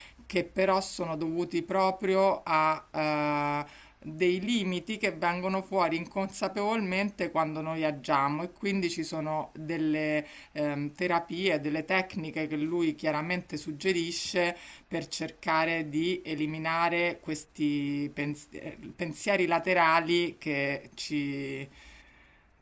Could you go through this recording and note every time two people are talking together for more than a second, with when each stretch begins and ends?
none

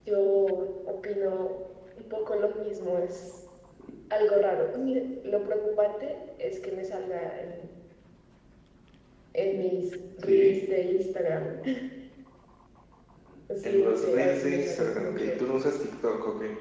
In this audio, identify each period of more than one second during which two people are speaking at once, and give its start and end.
13.6-15.3

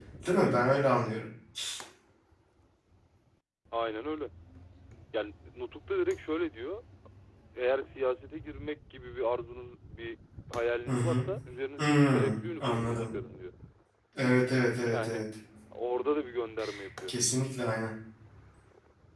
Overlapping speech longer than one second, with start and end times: 11.8-13.1

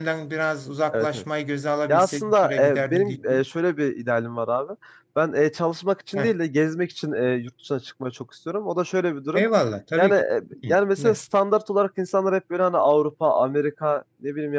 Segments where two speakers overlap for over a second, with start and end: 1.9-3.2

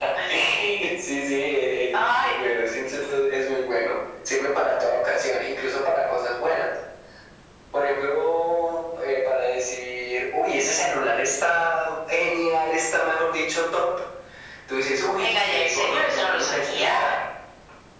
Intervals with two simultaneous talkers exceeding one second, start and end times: 15.2-17.1

